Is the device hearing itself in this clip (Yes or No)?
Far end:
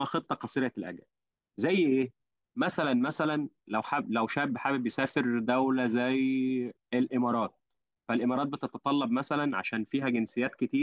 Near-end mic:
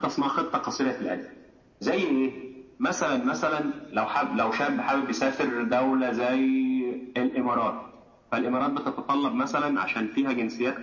Yes